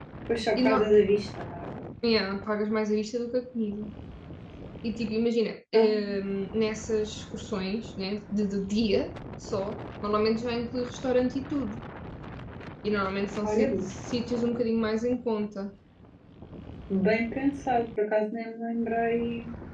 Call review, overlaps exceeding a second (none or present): none